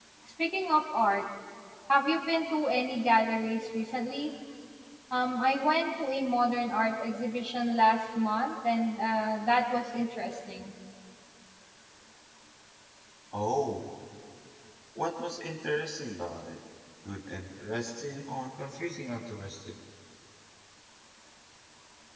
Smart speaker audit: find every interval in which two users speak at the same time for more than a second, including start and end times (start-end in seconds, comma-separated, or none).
none